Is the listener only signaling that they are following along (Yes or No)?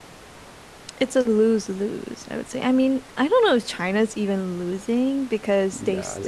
Yes